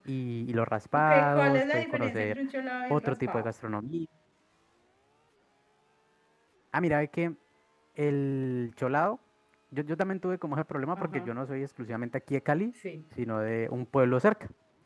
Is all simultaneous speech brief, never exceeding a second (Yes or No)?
No